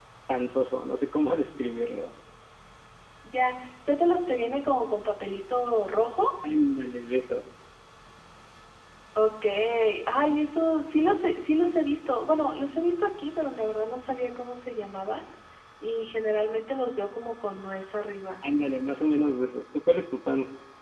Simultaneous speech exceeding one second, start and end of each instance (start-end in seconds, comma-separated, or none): none